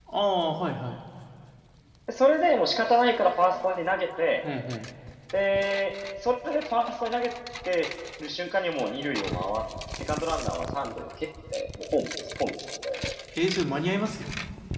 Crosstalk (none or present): none